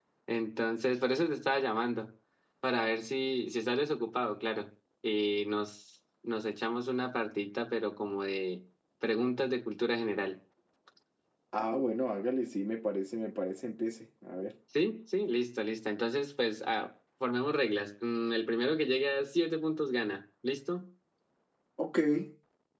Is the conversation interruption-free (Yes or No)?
Yes